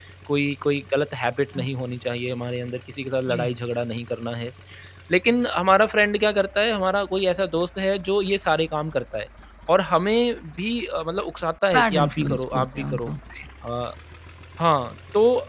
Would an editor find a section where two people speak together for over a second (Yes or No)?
Yes